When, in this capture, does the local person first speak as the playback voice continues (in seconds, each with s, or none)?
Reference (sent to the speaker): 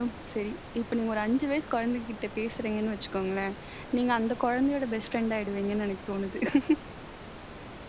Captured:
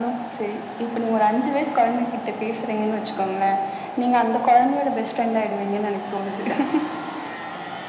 none